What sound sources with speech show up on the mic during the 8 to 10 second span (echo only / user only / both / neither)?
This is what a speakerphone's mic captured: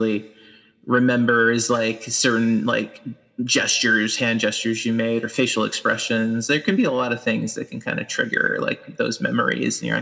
echo only